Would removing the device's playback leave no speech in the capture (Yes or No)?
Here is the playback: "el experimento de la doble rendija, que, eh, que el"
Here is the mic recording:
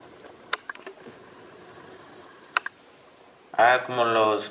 No